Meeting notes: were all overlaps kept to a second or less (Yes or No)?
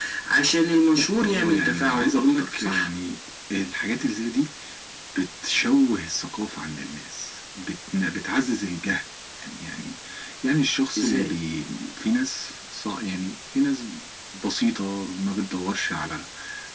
No